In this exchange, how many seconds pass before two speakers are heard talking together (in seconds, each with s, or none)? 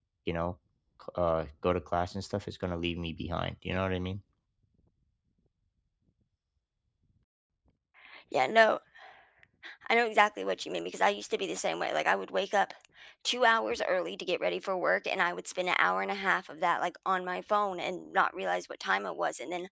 none